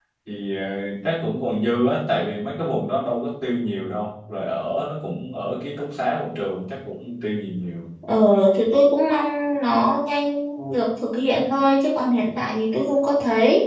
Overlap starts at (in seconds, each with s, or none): none